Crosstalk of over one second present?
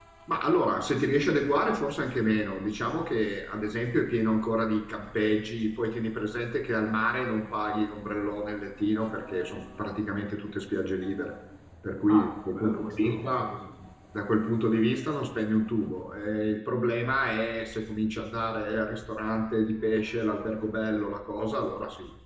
Yes, from 12.1 s

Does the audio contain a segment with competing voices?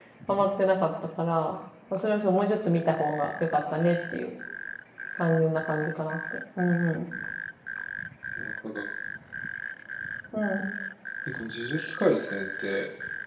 No

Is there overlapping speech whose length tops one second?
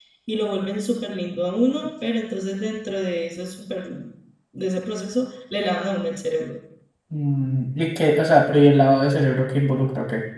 No

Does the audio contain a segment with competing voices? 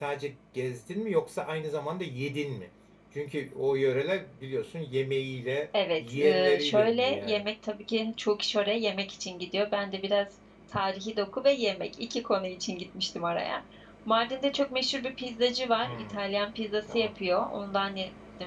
Yes, from 6.0 s

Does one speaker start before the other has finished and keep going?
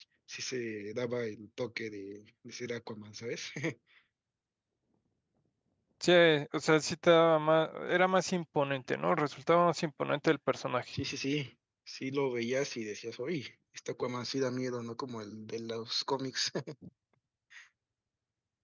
No

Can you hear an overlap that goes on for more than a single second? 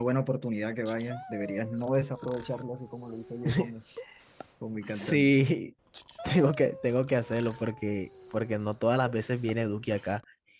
No

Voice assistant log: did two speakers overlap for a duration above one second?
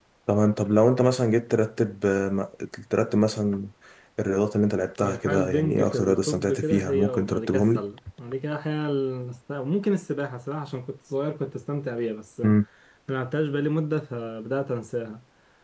Yes, from 5.0 s

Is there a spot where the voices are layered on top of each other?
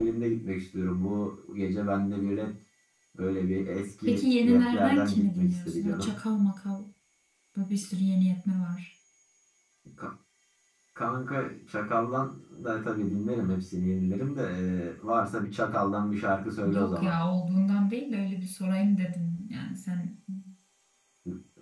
Yes, from 4.1 s

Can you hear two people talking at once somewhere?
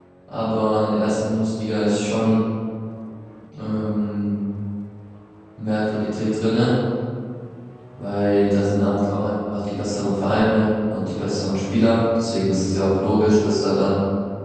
No

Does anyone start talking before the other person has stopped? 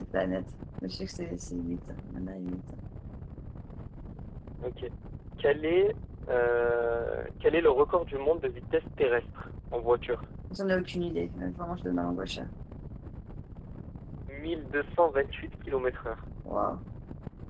No

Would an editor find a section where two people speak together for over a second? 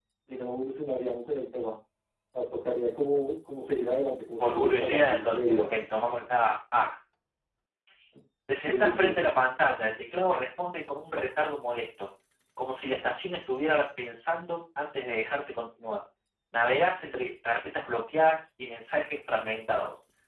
Yes, from 4.4 s

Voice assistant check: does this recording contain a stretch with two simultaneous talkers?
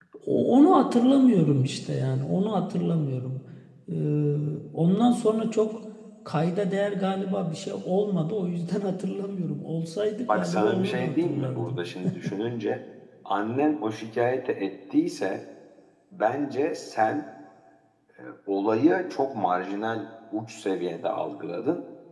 Yes, from 10.3 s

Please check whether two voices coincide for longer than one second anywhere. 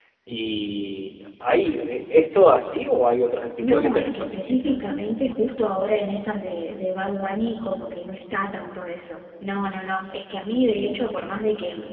Yes, from 3.6 s

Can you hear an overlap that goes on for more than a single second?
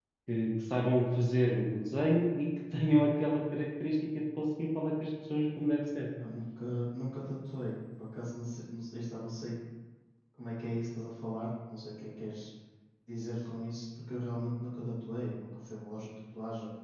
No

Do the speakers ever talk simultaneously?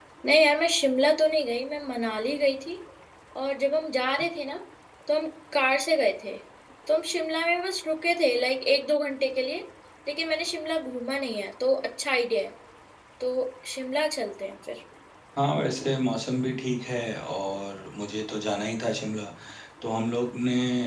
No

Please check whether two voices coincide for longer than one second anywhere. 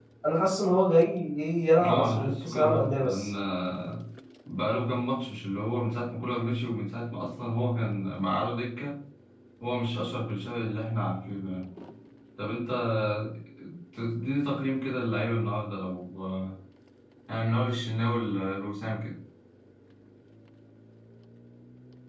Yes, from 1.8 s

